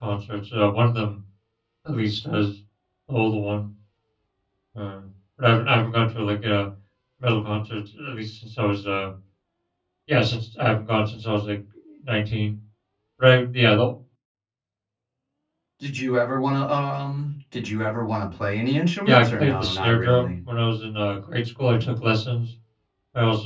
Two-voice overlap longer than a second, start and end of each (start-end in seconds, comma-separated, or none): 19.1-20.3